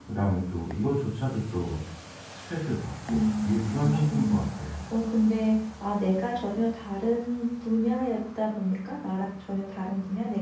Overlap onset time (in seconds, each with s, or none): 3.1 s